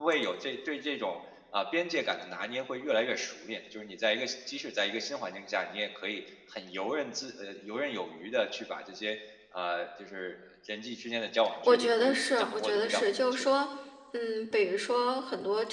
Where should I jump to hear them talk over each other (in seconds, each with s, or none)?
11.6 s